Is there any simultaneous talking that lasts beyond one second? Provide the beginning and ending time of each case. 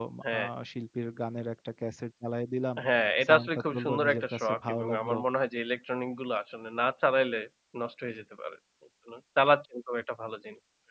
3.2-5.2

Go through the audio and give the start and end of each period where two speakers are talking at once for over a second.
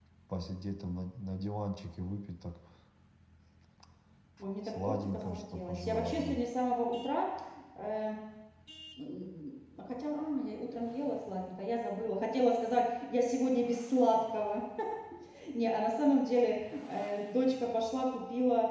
4.6-6.4

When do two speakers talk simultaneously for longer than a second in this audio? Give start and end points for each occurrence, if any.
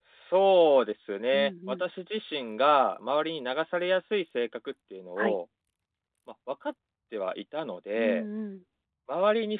none

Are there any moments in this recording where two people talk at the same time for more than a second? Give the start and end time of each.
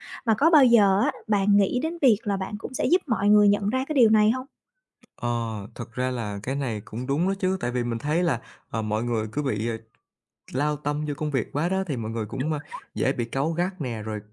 none

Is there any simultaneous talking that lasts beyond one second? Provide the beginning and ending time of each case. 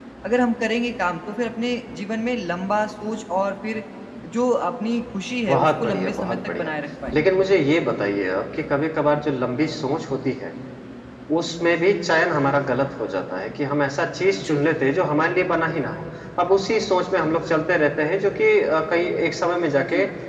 5.5-6.7

